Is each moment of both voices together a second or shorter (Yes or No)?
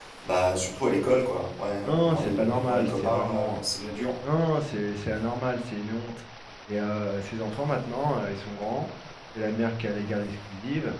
No